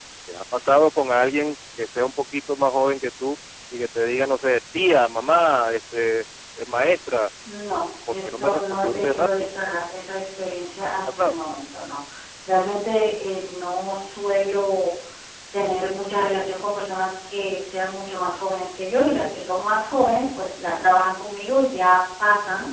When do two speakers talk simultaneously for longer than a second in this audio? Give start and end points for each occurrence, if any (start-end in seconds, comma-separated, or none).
8.1-9.5